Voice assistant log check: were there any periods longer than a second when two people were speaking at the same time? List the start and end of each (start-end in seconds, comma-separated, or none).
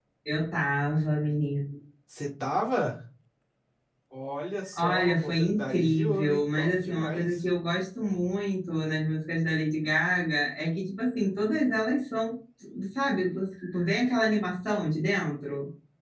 4.8-7.4